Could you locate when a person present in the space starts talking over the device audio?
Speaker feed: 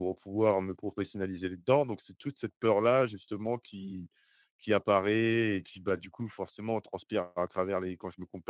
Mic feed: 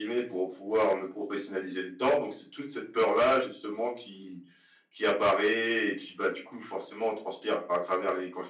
none

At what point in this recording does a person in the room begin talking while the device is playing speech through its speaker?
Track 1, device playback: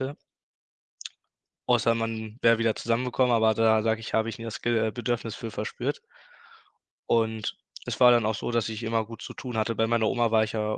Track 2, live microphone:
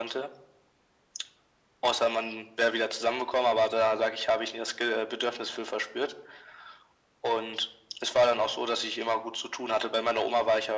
none

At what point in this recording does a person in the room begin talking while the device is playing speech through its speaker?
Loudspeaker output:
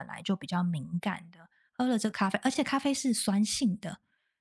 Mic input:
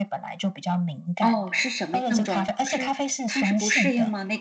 1 s

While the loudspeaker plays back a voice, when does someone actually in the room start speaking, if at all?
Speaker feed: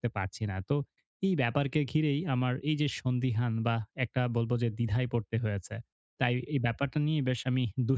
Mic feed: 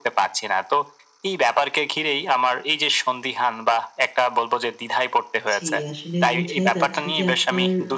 6 s

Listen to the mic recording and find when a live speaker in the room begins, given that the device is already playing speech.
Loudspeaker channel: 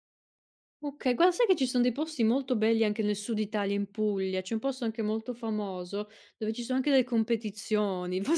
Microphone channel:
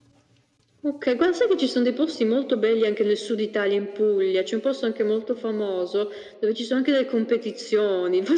none

